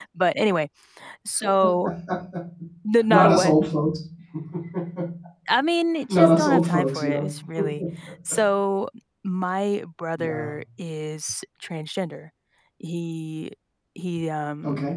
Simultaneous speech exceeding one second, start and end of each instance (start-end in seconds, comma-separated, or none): 6.1-7.3